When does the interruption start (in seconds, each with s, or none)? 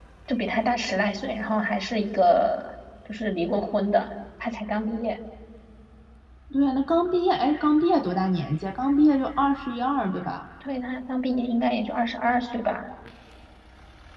none